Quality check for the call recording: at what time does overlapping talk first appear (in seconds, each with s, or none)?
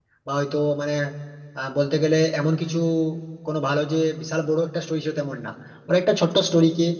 none